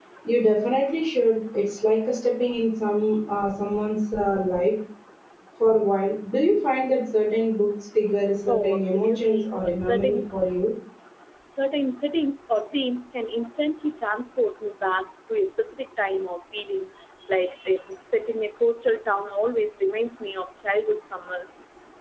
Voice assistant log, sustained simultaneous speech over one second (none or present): present